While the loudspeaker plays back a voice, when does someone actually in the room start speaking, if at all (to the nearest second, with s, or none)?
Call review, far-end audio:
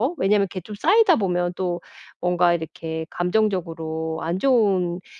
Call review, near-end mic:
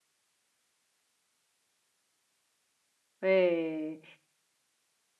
3 s